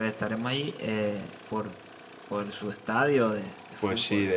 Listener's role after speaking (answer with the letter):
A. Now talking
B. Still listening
A